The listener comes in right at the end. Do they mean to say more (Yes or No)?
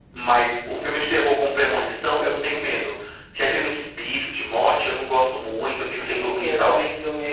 Yes